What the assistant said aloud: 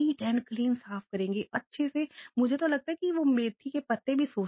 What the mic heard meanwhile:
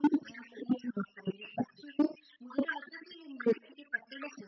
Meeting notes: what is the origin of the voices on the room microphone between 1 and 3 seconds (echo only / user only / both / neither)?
echo only